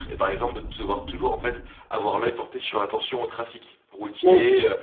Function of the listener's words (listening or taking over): listening